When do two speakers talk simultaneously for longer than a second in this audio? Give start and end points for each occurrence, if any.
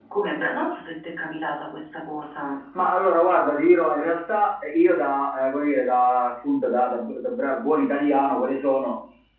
none

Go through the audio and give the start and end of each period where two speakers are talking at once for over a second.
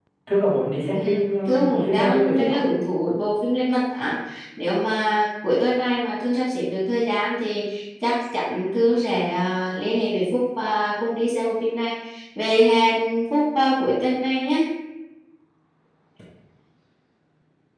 0.9-2.6

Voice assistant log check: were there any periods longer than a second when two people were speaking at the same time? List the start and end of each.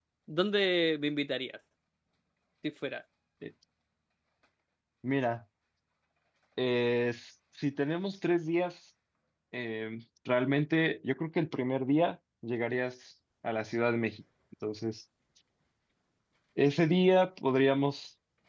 none

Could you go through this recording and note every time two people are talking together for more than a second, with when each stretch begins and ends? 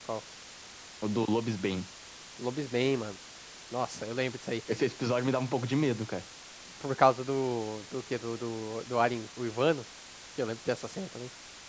none

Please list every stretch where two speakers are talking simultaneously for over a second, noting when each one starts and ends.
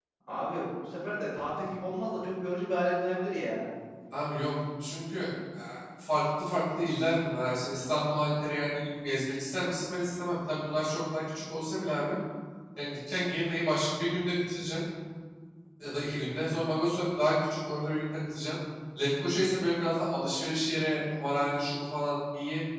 none

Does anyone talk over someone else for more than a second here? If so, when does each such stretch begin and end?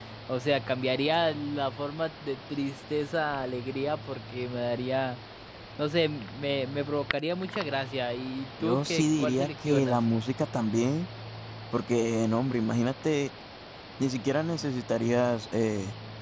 8.6-10.0

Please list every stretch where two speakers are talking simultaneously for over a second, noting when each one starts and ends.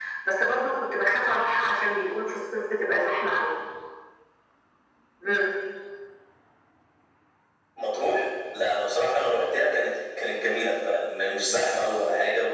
none

